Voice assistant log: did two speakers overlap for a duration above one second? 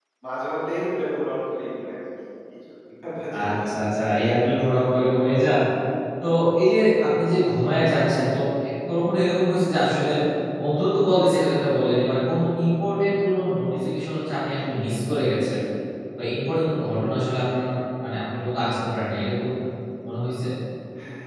No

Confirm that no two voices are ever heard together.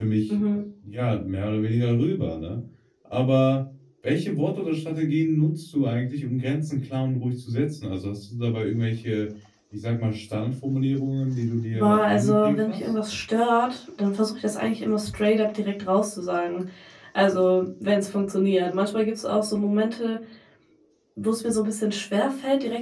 No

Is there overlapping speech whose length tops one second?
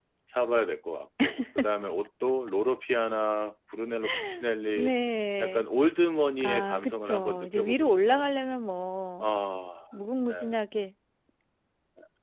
Yes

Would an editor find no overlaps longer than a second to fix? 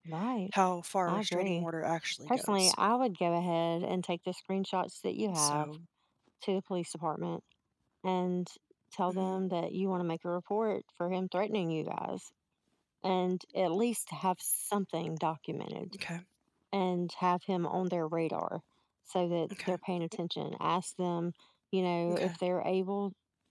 Yes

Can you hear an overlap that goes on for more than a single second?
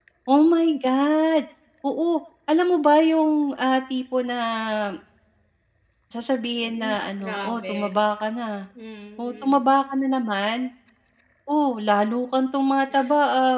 Yes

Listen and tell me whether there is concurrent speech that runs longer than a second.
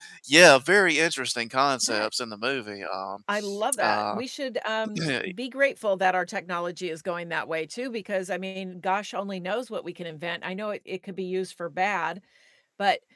No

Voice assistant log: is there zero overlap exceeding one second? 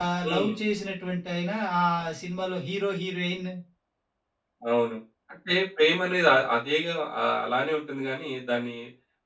Yes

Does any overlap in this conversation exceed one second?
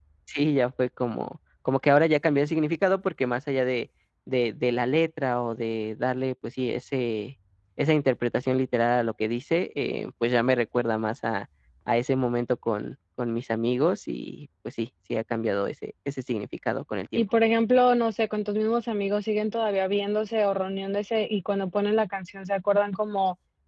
No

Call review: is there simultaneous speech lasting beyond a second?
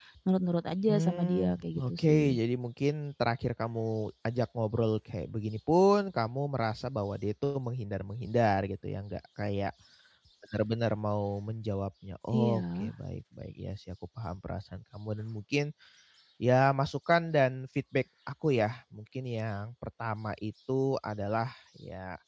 Yes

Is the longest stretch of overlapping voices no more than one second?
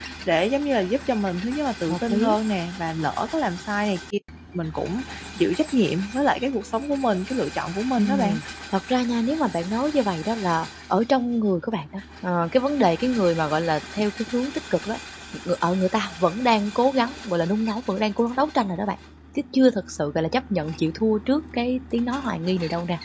Yes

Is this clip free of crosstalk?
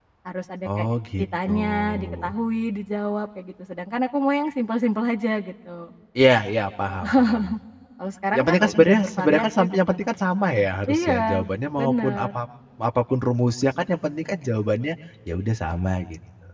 No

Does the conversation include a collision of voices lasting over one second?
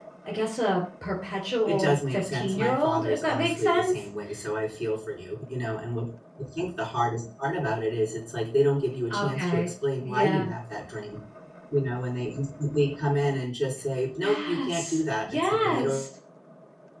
Yes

